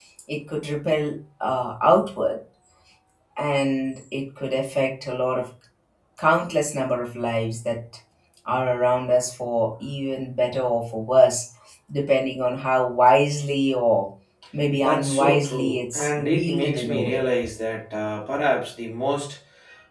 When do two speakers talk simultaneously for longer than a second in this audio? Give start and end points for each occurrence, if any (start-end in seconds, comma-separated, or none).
14.8-17.2